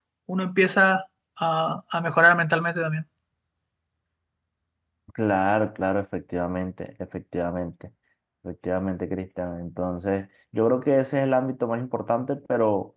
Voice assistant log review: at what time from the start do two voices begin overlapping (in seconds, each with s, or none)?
none